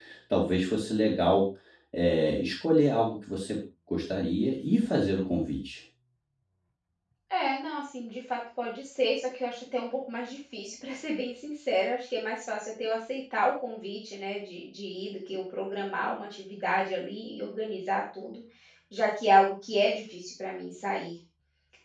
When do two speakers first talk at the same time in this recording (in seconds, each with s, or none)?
none